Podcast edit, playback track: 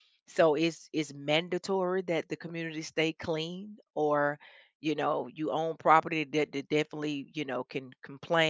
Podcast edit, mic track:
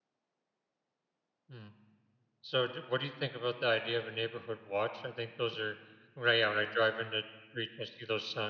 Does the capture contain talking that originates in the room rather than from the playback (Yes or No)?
Yes